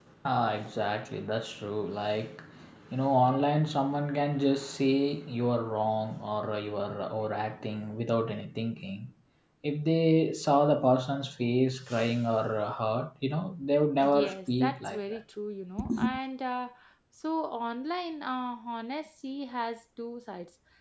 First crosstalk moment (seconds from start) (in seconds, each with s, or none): 14.0 s